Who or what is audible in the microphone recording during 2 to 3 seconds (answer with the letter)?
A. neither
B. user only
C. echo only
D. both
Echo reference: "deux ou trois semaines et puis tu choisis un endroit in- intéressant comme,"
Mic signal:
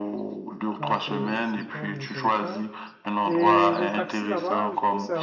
D